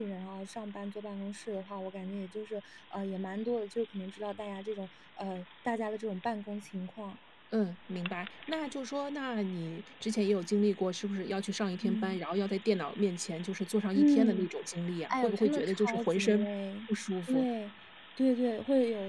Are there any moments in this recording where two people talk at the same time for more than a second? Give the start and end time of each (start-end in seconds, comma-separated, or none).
15.1-16.5